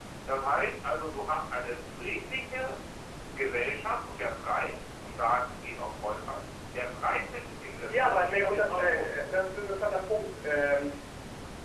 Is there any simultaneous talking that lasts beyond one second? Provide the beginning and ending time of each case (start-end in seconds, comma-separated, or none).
7.9-9.2